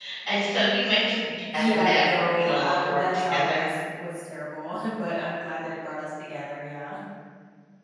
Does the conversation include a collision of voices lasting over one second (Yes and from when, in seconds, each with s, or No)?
Yes, from 1.5 s